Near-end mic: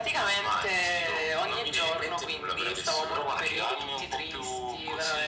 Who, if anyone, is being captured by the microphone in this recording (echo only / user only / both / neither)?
echo only